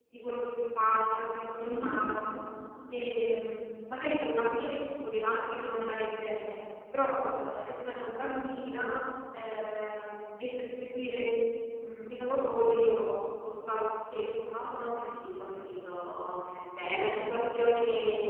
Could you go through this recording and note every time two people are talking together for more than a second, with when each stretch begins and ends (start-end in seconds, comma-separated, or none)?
none